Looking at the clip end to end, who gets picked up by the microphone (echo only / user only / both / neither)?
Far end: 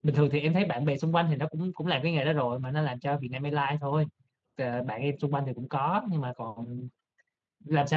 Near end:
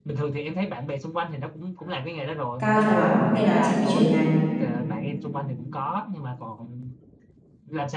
both